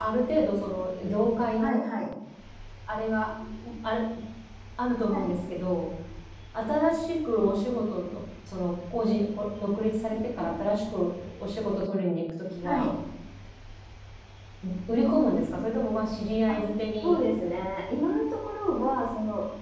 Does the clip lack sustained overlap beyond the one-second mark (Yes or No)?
Yes